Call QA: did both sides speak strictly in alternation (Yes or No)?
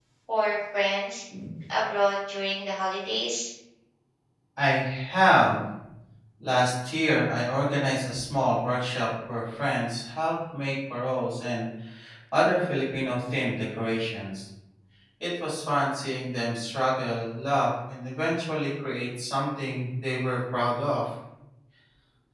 Yes